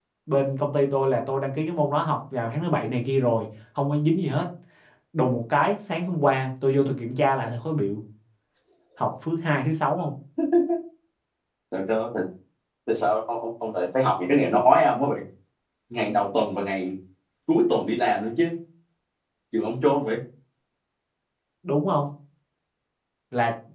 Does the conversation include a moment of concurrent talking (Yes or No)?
No